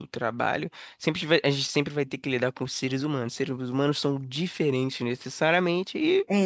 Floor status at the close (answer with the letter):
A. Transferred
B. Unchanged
B